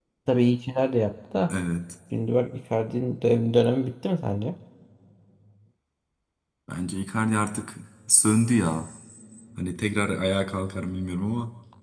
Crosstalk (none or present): none